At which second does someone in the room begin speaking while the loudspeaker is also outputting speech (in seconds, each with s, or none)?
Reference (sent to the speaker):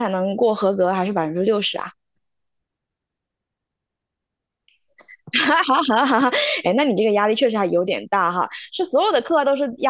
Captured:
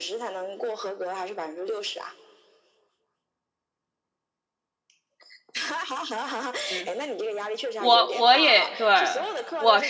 6.7 s